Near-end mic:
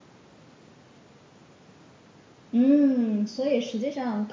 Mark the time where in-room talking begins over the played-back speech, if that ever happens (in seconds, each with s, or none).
2.5 s